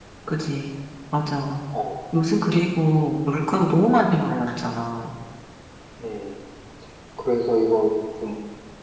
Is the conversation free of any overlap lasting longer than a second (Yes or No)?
Yes